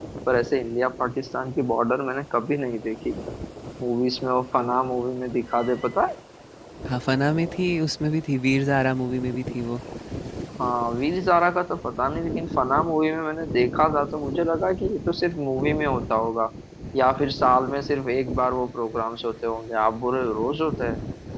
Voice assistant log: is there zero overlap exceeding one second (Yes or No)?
Yes